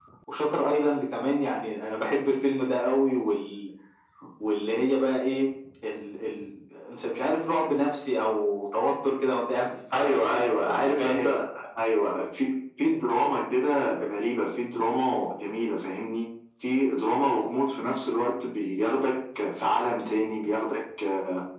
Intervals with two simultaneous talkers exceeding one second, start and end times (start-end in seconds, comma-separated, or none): 9.9-11.4